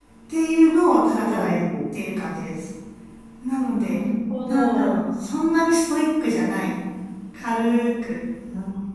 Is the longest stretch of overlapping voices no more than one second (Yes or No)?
No